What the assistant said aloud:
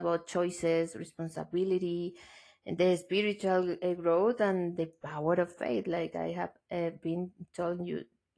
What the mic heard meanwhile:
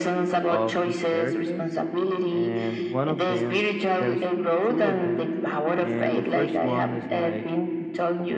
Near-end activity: present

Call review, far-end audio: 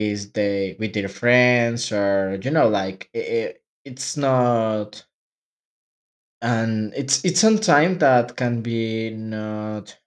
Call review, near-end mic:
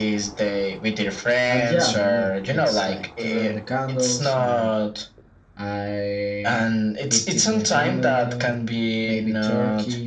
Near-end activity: present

